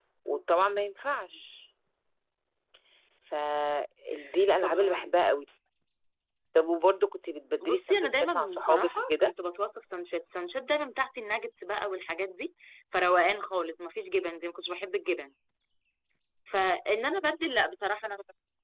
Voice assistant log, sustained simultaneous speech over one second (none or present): present